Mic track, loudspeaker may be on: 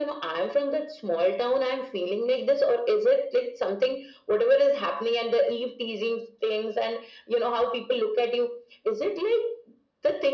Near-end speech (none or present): none